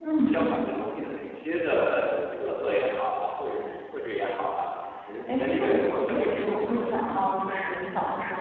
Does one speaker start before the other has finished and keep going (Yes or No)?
Yes